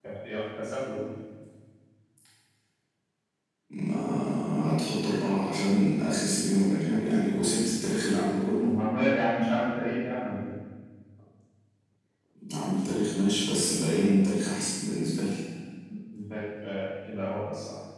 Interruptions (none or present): none